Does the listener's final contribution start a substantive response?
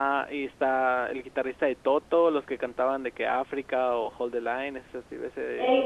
Yes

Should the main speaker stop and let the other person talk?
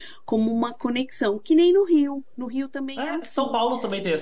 Yes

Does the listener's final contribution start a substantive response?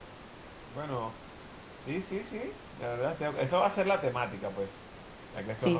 No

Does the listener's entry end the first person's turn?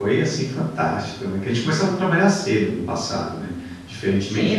Yes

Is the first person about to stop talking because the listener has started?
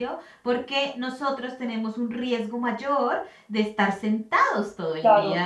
Yes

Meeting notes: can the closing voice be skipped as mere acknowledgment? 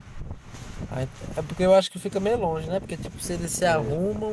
Yes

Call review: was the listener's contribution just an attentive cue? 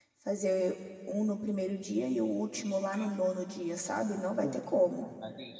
No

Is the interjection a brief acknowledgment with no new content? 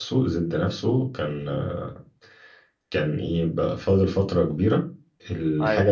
Yes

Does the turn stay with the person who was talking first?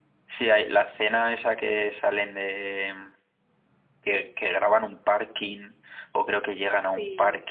Yes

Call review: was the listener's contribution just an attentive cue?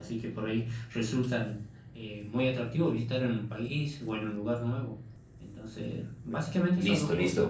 No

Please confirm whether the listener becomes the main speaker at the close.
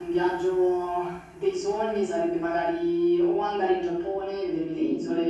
No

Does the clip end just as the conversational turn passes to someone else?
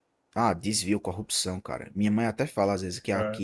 No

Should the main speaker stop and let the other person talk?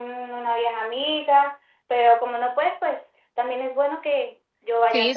Yes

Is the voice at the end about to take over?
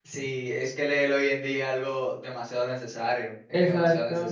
Yes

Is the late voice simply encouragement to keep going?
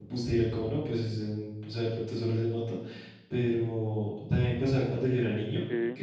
Yes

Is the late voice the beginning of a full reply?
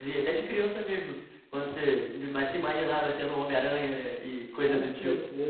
Yes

